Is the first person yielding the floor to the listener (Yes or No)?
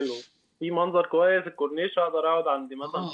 Yes